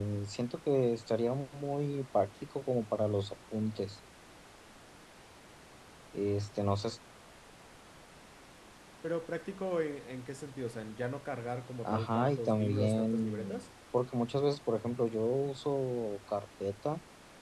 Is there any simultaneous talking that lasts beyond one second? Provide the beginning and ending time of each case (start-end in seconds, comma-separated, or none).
11.8-13.6